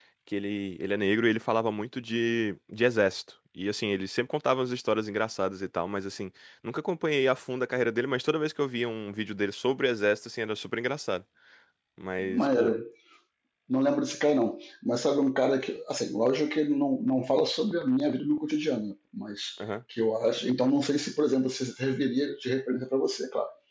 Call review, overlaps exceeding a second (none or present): none